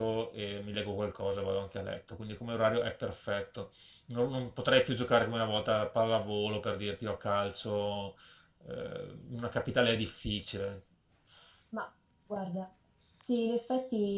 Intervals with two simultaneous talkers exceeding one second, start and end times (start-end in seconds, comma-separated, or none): none